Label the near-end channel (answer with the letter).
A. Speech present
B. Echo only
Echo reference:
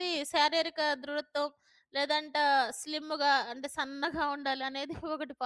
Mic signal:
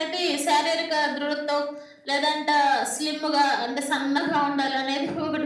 B